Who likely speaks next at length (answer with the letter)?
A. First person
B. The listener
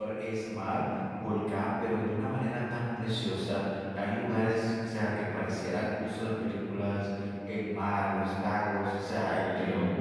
A